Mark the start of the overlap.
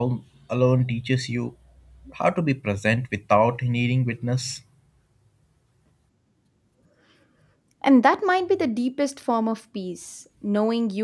none

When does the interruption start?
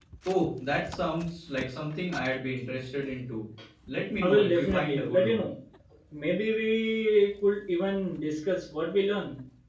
4 s

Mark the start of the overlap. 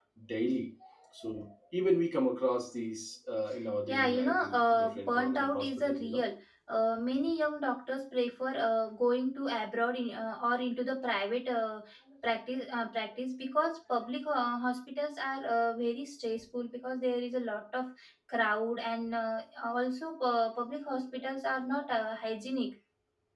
4 s

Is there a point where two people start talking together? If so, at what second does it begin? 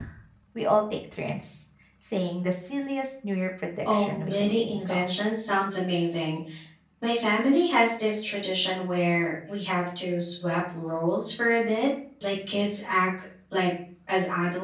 4 s

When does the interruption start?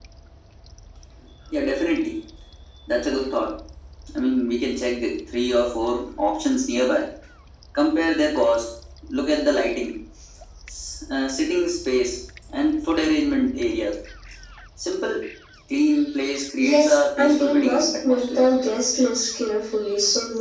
17 s

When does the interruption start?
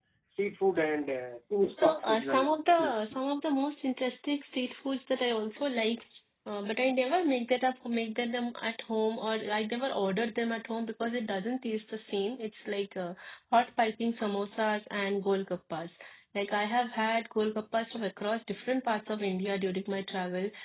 2 s

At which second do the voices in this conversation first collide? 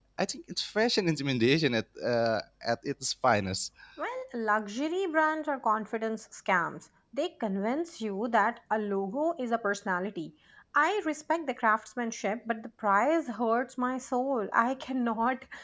none

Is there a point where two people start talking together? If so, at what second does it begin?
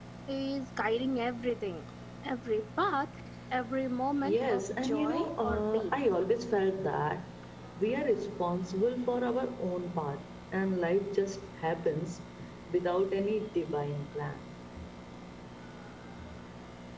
4 s

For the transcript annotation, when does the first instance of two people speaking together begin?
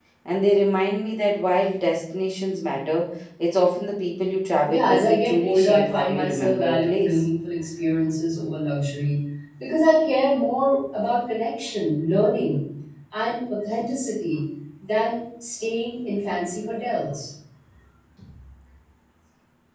5 s

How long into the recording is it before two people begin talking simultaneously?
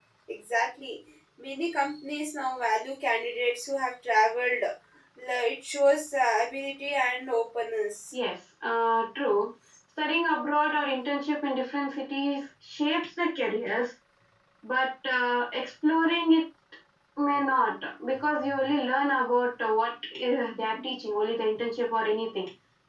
none

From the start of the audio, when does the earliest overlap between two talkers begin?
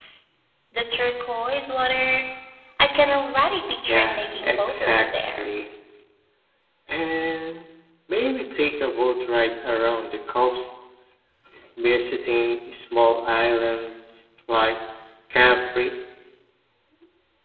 4 s

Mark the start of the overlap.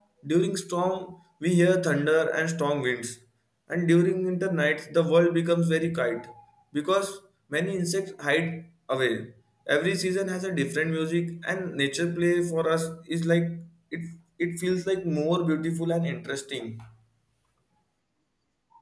none

